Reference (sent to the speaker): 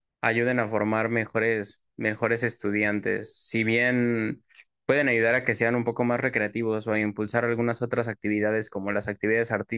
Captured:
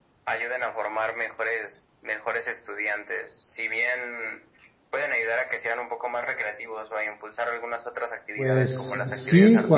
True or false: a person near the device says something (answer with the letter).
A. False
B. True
B